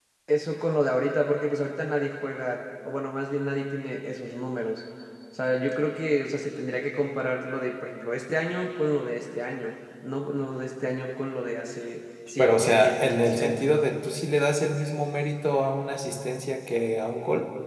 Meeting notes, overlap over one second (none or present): present